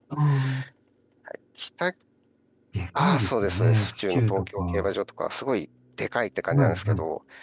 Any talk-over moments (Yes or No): Yes